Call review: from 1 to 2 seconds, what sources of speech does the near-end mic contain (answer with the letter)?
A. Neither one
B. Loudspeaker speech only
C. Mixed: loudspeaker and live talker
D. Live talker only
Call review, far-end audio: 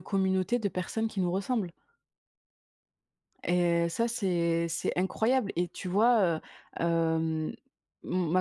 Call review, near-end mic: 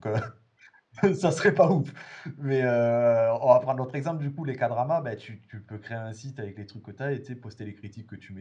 D